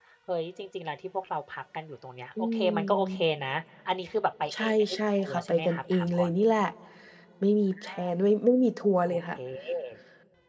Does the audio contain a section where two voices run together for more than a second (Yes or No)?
Yes